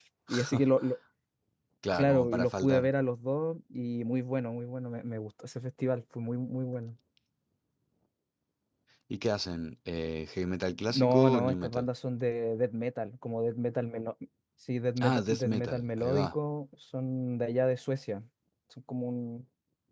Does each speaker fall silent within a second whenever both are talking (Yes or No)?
No